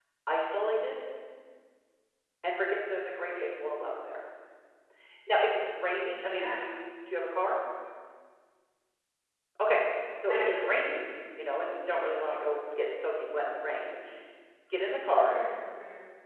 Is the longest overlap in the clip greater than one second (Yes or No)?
No